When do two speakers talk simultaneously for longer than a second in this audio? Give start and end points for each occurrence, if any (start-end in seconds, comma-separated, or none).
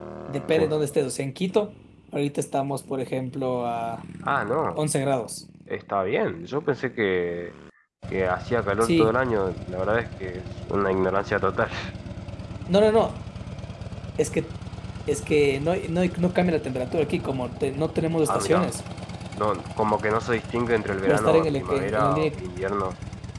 21.1-22.4